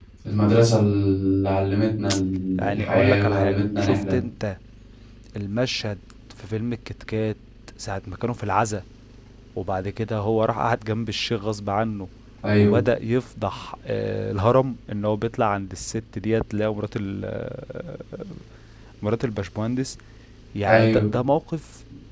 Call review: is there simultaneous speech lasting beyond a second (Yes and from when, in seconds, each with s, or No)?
Yes, from 2.6 s